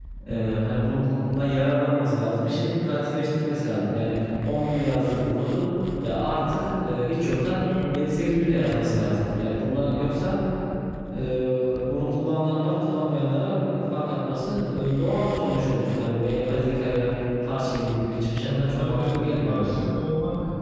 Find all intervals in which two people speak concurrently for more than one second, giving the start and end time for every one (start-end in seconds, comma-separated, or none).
18.5-19.8